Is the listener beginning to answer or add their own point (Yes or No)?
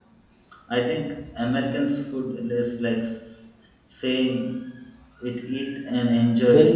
Yes